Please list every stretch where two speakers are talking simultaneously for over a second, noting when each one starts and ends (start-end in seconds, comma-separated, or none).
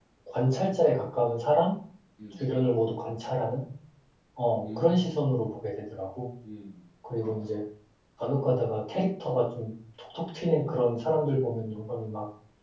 none